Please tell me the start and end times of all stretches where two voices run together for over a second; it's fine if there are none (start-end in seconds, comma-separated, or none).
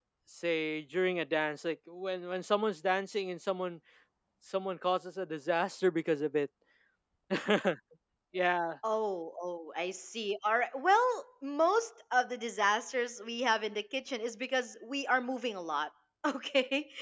none